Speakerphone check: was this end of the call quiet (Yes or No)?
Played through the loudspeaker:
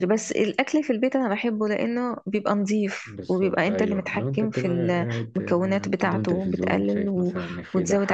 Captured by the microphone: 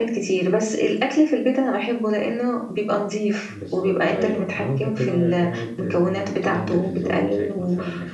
Yes